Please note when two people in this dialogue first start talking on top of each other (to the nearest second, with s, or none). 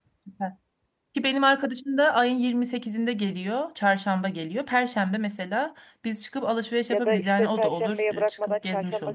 7 s